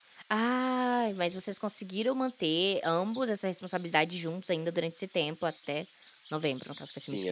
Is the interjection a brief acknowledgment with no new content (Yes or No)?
No